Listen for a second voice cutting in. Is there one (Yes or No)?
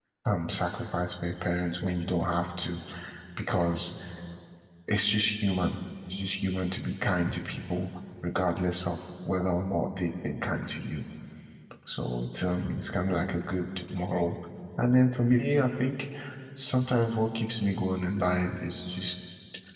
No